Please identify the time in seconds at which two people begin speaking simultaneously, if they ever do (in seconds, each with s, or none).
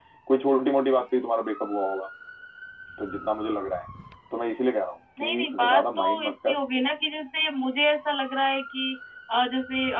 5.2 s